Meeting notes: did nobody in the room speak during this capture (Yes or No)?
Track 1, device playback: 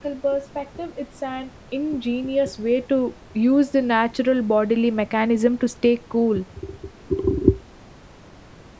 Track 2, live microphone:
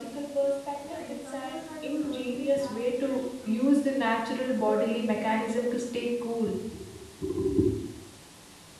No